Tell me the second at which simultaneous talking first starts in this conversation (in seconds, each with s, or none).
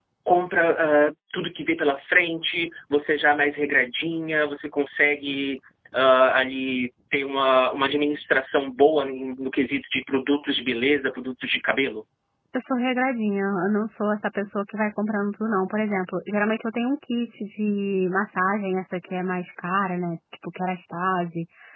none